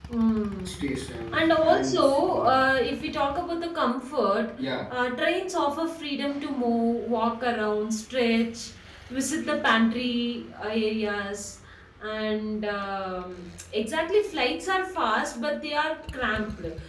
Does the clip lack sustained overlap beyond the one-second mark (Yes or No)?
No